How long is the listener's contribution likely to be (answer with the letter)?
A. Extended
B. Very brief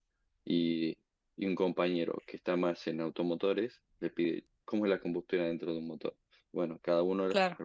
B